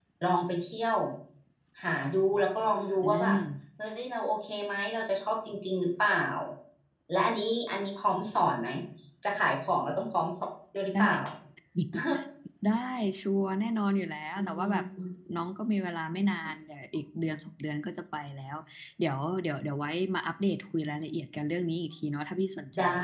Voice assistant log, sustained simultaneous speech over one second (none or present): none